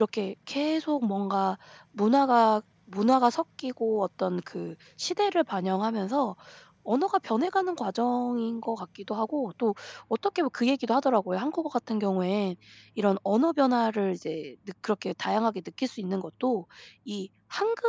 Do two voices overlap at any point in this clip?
No

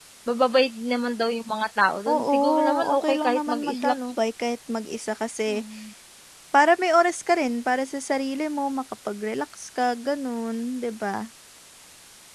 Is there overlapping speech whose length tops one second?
Yes, from 2.1 s

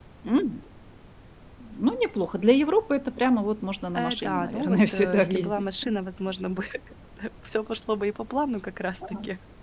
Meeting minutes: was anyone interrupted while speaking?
Yes, from 4.0 s

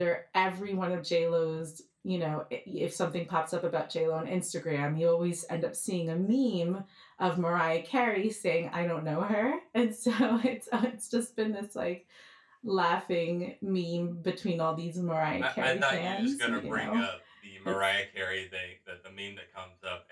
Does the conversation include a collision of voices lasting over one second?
Yes, from 15.4 s

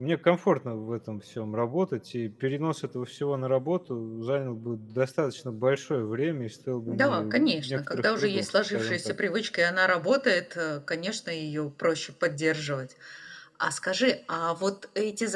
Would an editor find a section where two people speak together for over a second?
Yes, from 6.9 s

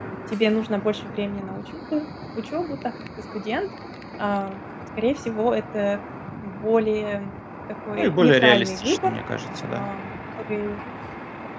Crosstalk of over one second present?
Yes, from 8.0 s

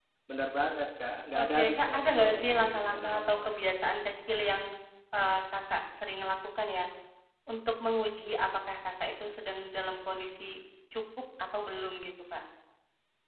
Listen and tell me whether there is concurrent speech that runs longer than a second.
Yes, from 1.3 s

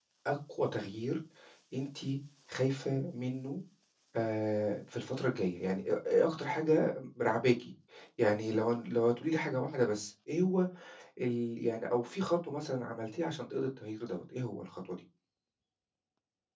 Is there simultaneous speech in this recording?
No

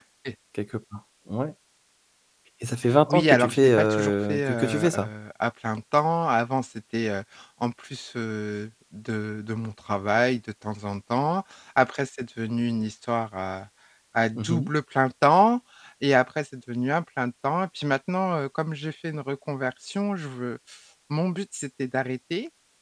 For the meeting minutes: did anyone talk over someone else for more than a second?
Yes, from 3.1 s

